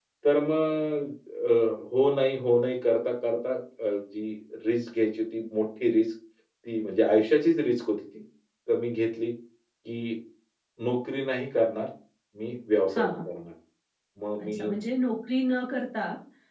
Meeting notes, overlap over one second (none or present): none